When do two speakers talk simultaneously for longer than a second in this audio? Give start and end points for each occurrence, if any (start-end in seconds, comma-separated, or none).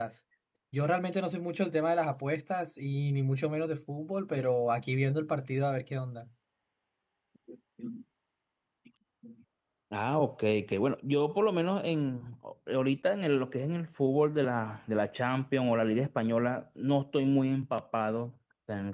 none